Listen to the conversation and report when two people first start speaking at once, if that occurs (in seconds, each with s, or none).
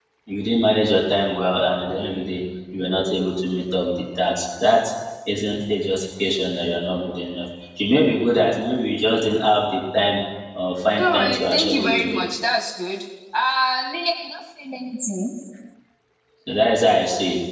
11.0 s